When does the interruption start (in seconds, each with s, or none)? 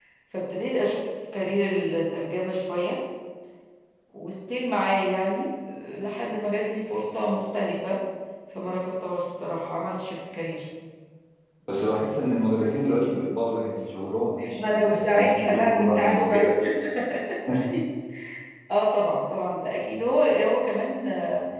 14.6 s